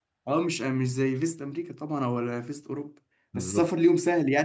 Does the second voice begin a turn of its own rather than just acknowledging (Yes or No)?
No